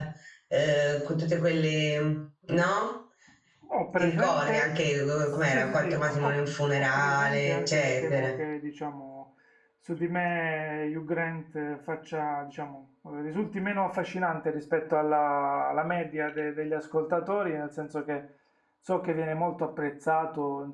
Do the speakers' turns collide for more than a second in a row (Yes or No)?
Yes